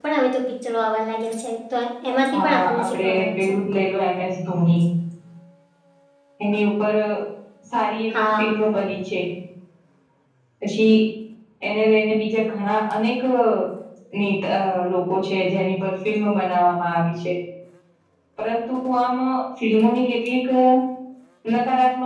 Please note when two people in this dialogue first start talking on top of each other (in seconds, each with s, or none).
2.3 s